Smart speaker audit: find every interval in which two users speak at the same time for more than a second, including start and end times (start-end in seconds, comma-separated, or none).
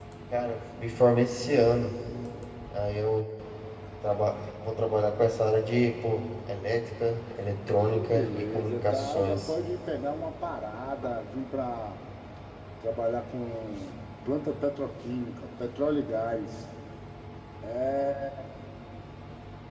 7.8-9.5